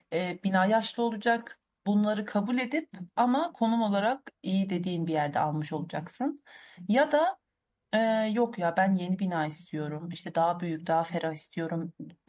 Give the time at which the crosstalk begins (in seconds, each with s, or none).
none